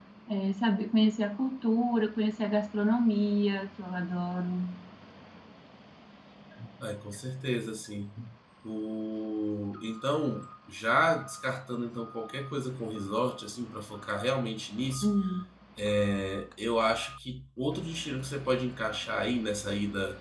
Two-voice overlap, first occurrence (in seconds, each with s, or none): none